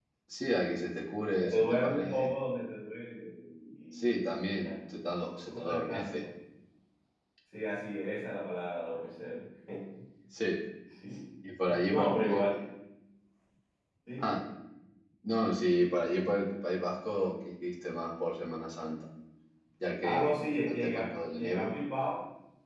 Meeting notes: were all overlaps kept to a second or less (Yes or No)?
No